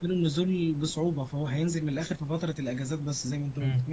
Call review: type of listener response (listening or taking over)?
taking over